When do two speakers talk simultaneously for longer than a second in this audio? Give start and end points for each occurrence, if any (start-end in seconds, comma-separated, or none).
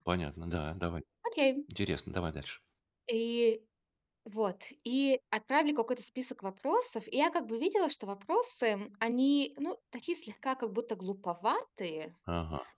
none